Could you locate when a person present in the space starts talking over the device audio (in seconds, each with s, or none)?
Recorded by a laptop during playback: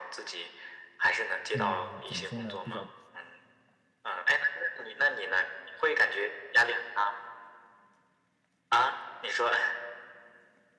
1.5 s